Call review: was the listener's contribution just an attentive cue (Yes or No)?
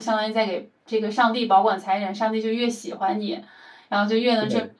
Yes